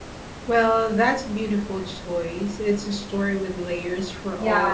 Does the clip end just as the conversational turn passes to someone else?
Yes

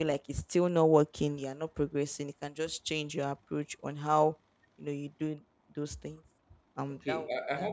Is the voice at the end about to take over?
Yes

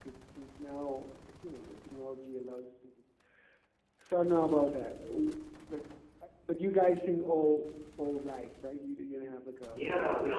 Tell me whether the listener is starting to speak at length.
Yes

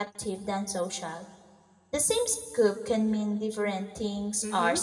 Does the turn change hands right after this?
Yes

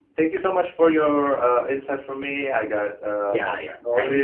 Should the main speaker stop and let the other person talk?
Yes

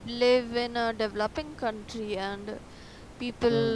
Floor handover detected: No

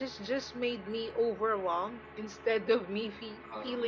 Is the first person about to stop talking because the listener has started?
No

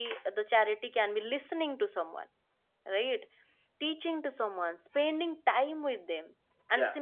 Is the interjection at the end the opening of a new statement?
No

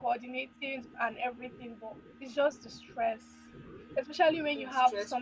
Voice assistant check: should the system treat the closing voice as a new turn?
No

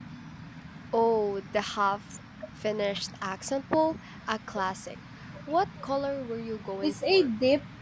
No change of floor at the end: No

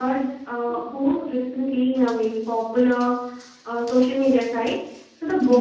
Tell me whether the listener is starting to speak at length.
No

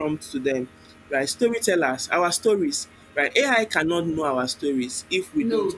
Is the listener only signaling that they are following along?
Yes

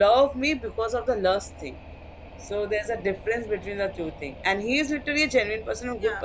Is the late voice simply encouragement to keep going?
Yes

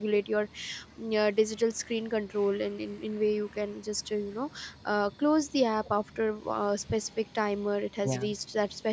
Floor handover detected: No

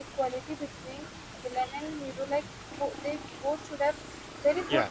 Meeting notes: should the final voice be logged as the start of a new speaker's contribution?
No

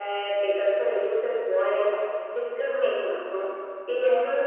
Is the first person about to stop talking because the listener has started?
No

